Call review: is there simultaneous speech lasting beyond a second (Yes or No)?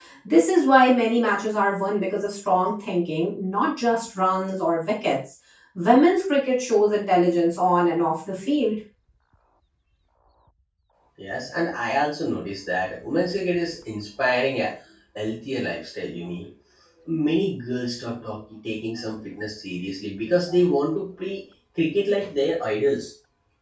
No